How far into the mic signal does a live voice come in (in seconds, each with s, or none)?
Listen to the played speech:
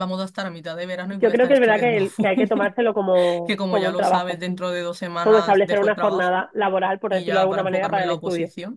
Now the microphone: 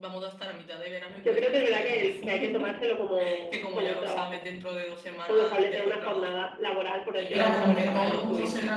7.3 s